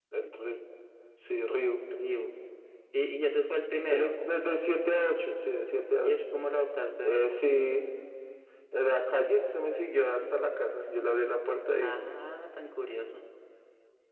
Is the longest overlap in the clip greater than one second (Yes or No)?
No